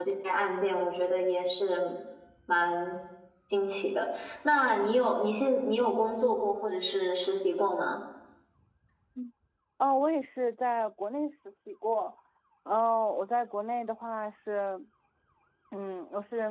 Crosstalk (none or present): none